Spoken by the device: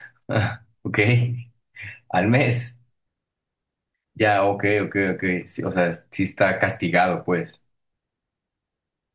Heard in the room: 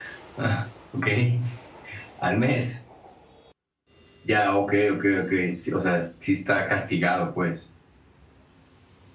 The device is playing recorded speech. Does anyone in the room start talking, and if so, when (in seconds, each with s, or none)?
none